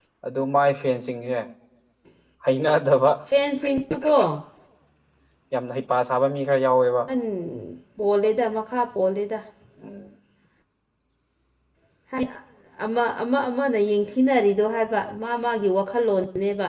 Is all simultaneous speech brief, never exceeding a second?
Yes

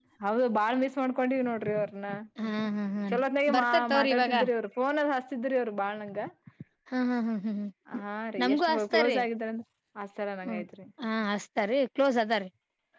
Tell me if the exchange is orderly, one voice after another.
No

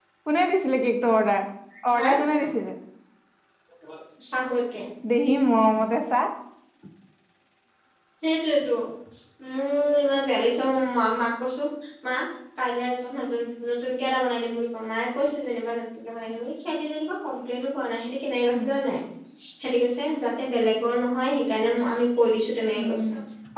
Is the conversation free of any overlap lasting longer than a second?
Yes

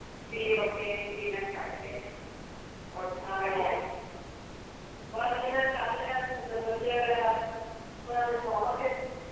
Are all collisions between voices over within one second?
Yes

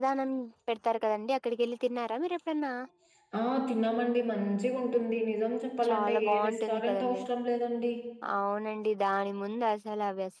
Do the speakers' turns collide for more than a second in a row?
Yes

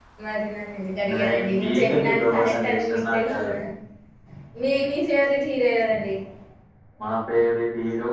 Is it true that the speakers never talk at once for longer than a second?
No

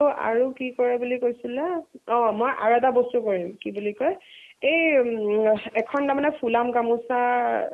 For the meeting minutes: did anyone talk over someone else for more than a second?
No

